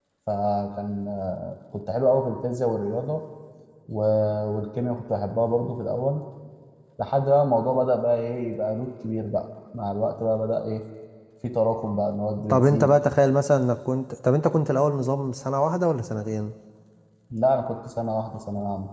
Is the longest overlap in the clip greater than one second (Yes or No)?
No